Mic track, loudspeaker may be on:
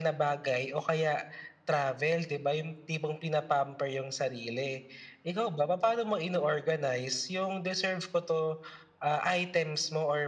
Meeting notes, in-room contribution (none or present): none